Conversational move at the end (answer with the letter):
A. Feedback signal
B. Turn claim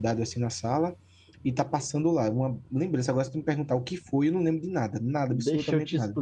B